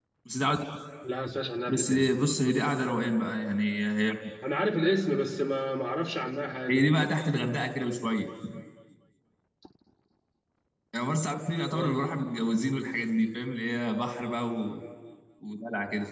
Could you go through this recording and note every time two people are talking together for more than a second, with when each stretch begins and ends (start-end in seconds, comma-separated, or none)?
none